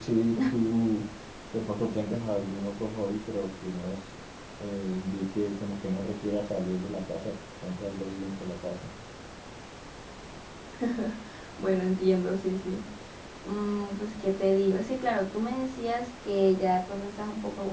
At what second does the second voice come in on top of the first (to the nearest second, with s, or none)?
none